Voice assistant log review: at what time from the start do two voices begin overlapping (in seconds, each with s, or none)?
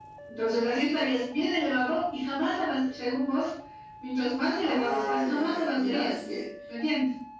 4.6 s